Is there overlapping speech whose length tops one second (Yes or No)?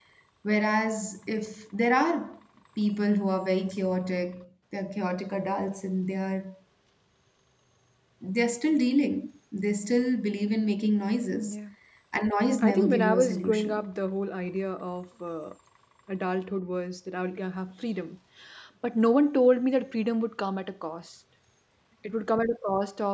Yes